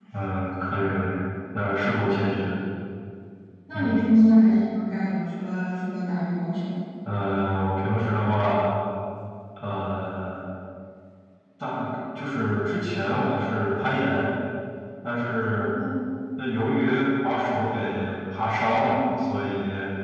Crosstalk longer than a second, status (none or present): none